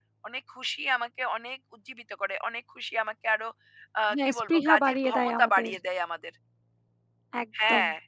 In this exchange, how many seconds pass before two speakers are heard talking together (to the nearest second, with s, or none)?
4 s